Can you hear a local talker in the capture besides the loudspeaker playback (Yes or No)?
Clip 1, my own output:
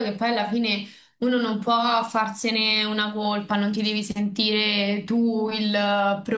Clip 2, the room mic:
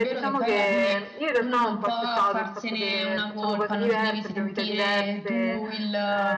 Yes